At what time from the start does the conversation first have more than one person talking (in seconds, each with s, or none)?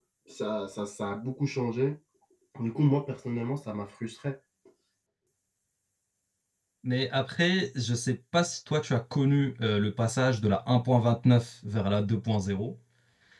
none